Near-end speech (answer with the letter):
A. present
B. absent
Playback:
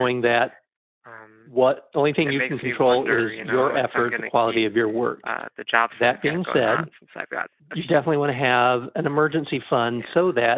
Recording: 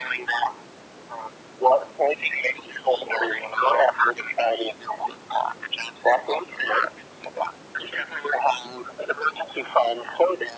B